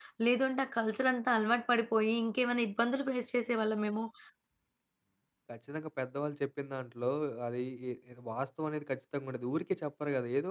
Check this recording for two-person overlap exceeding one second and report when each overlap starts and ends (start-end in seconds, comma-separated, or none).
none